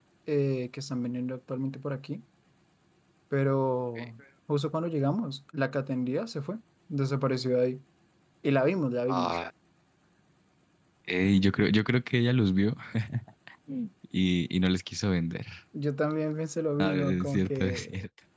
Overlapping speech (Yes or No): Yes